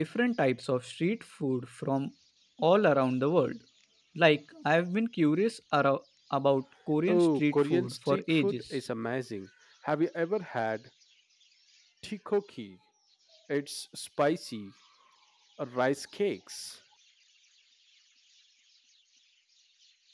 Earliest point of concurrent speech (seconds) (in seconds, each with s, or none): 7.1 s